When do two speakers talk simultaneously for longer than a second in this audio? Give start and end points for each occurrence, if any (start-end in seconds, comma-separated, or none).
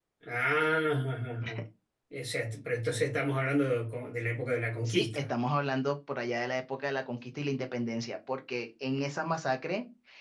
none